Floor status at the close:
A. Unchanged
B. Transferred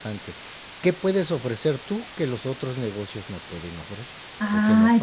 B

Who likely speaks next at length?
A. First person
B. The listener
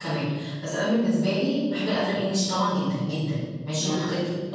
A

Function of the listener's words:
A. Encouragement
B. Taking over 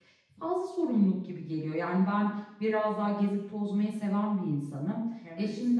A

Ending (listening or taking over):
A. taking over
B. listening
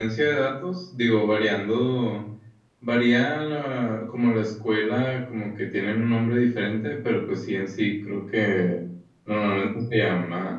B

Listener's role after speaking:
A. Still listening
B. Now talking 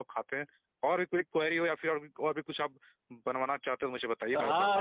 B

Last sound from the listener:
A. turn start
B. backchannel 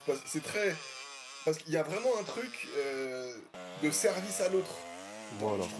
B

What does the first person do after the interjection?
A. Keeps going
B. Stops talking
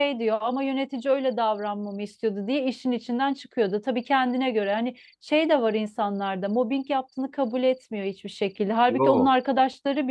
A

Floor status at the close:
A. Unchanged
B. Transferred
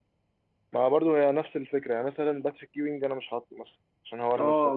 B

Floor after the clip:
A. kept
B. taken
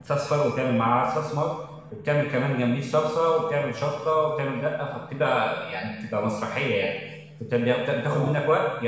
A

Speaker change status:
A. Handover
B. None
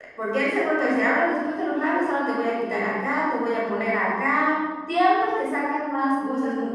A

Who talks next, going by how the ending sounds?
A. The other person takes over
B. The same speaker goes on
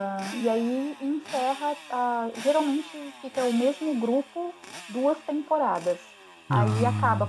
B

